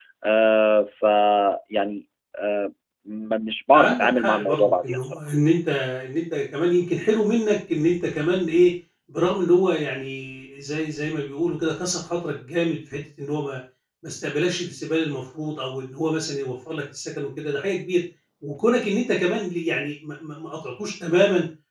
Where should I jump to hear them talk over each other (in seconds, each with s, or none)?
3.7 s